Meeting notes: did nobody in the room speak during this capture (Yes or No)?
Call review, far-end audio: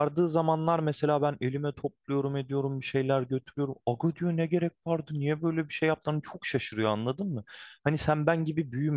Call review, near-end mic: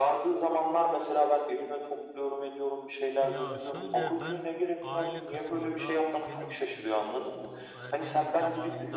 No